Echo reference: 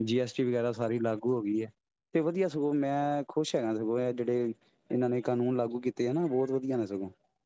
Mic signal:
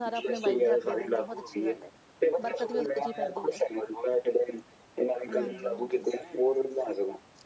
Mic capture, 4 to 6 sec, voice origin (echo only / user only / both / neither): both